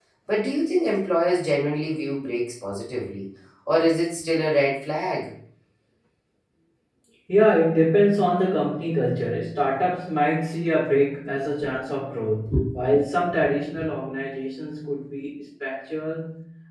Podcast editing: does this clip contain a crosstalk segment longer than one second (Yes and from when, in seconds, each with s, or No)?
No